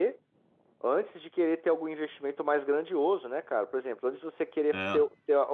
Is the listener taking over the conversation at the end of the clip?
No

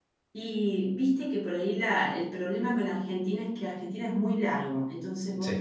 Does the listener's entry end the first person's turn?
No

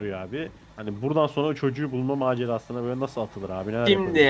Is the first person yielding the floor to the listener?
Yes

